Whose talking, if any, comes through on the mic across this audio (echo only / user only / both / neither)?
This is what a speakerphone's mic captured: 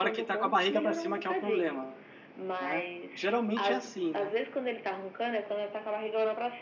both